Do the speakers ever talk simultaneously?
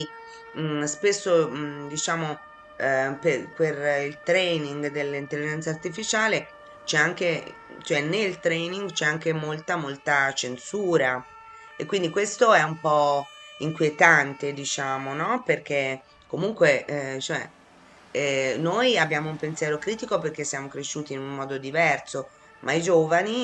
No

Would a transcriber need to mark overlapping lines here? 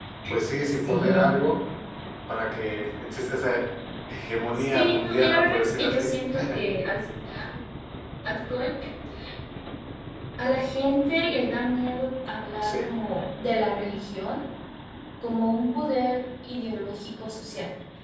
Yes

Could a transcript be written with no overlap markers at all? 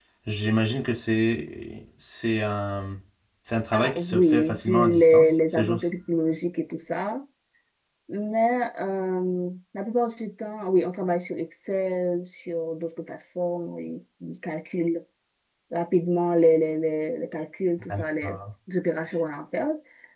No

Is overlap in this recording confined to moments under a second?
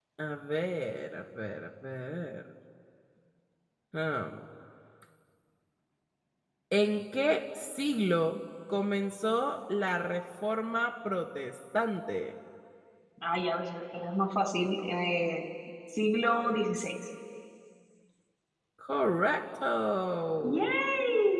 Yes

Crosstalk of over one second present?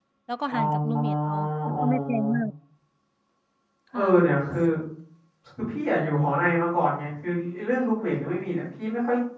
Yes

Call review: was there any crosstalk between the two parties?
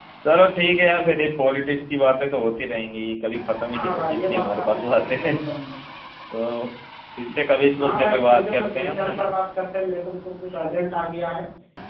Yes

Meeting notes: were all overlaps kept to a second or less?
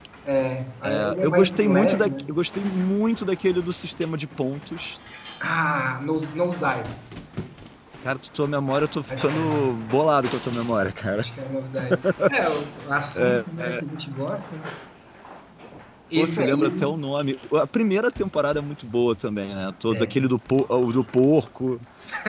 No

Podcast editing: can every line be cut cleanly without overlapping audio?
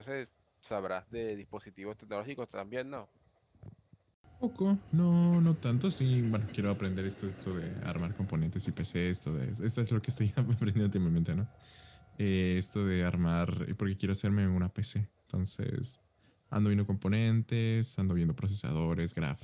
Yes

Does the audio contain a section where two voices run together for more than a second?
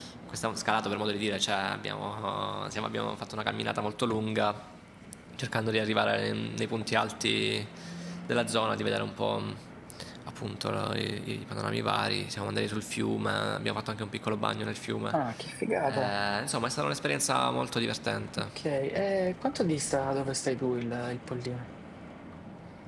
No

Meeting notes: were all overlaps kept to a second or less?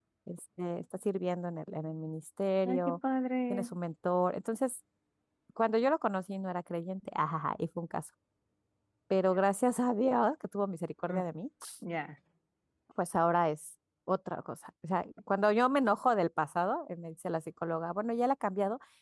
Yes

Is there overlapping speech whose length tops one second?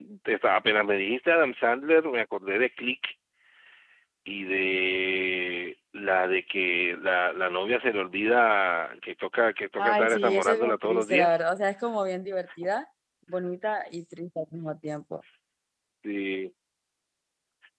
Yes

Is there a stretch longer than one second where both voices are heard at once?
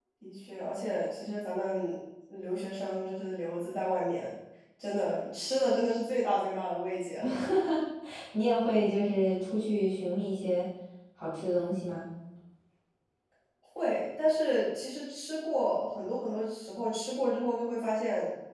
No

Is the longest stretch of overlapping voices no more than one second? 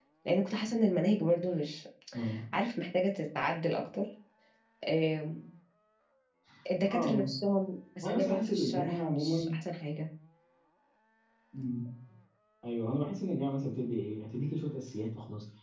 No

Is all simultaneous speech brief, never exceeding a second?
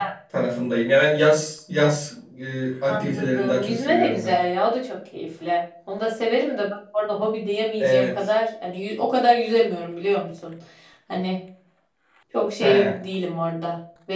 No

